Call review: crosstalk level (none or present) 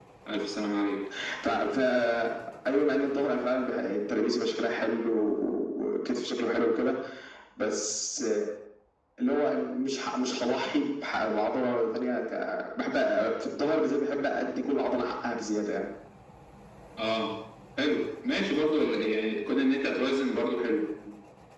none